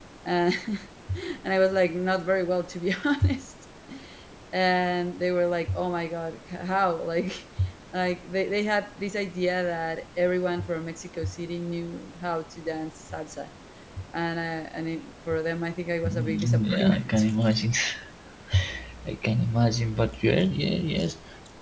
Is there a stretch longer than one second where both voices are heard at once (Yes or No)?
Yes